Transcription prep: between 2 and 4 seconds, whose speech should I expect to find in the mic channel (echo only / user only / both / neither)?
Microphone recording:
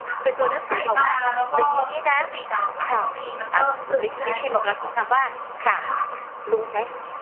both